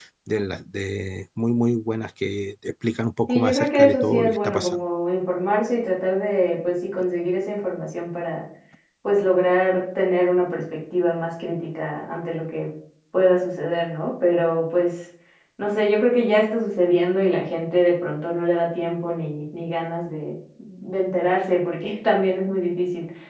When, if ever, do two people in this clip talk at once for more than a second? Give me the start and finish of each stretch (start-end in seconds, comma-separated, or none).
3.3-4.8